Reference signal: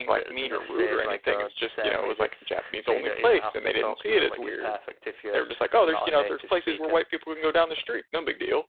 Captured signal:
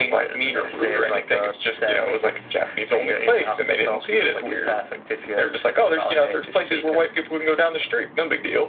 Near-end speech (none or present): none